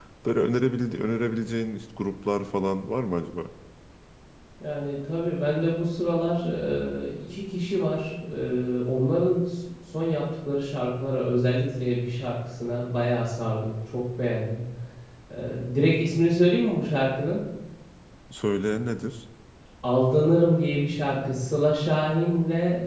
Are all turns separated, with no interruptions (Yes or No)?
Yes